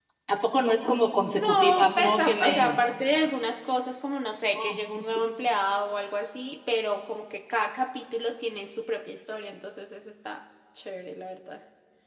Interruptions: present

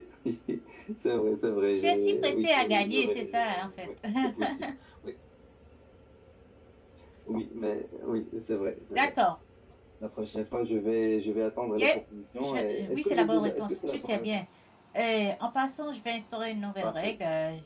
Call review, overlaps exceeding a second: present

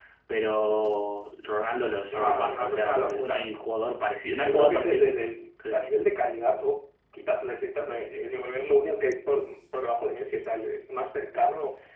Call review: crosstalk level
present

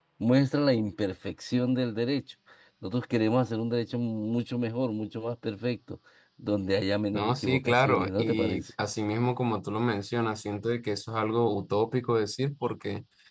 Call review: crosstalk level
present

